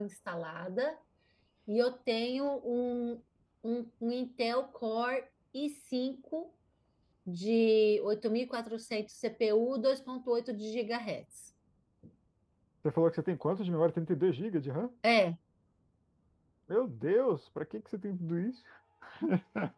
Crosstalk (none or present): none